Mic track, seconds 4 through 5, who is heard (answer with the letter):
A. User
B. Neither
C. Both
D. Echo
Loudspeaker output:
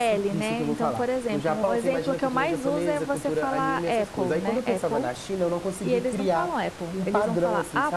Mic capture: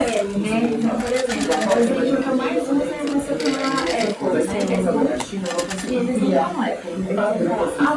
C